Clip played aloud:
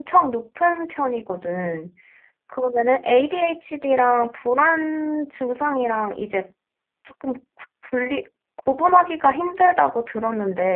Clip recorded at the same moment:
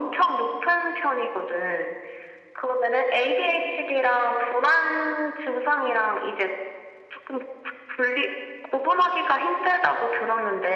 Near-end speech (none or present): none